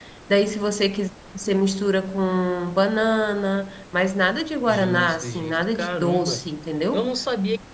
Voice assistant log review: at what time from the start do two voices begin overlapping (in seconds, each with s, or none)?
4.7 s